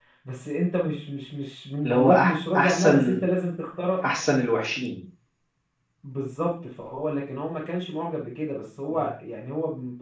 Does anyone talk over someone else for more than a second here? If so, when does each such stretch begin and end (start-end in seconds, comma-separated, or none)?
1.8-3.2